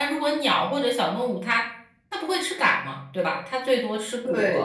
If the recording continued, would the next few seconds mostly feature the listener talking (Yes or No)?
Yes